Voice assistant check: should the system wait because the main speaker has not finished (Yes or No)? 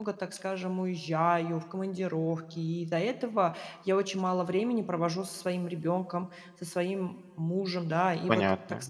Yes